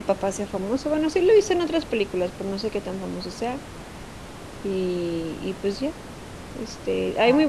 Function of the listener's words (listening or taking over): listening